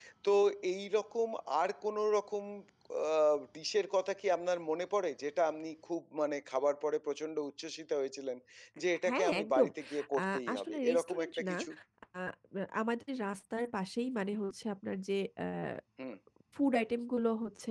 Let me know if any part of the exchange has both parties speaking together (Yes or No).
Yes